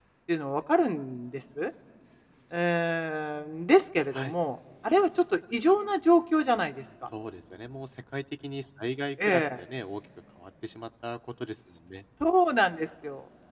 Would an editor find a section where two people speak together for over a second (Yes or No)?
No